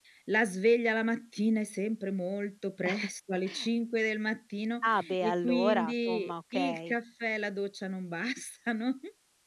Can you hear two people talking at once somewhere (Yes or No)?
Yes